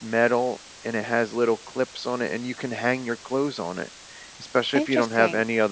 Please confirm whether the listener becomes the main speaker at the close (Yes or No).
No